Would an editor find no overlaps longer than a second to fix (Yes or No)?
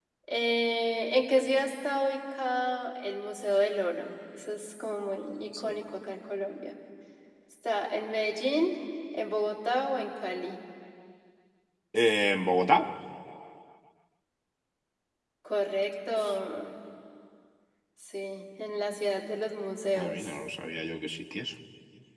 Yes